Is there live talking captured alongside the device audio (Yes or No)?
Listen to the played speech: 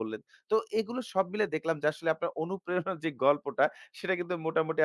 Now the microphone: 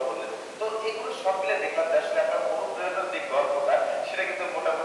No